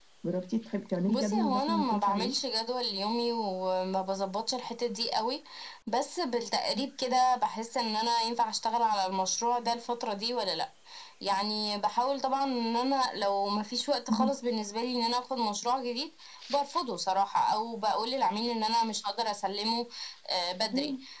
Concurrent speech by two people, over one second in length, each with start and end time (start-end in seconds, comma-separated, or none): 1.1-2.3